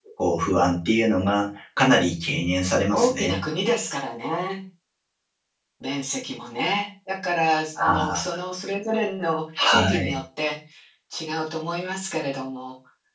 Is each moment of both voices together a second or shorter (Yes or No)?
Yes